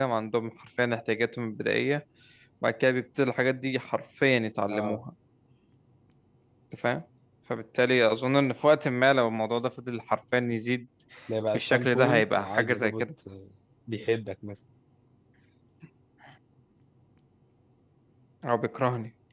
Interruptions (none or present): present